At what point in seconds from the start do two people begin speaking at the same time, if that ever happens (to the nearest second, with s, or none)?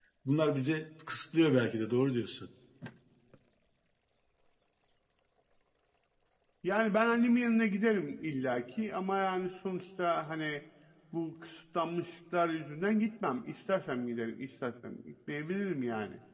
none